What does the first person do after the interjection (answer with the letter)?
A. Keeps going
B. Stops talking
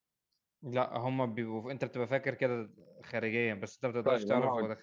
B